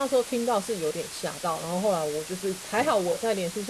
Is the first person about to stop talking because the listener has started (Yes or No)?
No